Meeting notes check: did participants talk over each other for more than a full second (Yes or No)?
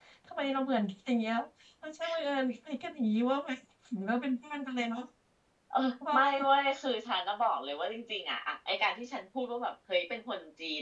No